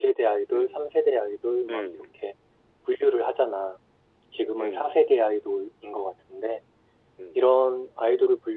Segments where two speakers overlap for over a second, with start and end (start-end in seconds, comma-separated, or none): none